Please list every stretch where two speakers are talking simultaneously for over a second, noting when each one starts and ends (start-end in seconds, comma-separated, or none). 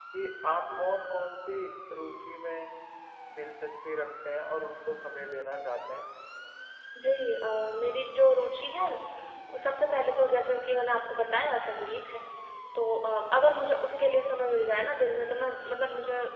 none